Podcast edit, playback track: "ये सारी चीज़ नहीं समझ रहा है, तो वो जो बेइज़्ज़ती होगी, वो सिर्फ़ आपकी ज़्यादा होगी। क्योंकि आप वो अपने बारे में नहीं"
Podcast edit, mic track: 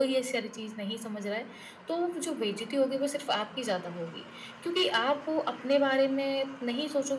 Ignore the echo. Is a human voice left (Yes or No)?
No